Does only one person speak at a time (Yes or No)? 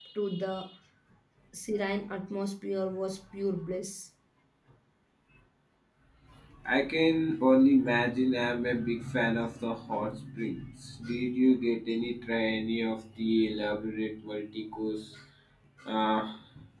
Yes